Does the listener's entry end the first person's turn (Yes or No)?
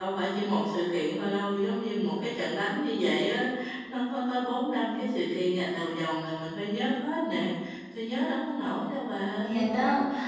Yes